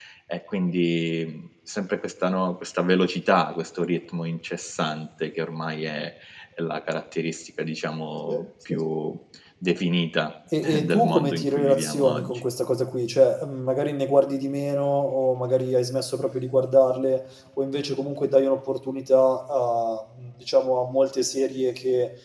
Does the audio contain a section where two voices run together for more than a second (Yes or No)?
Yes